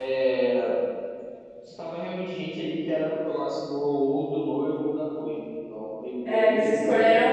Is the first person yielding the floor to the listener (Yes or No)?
Yes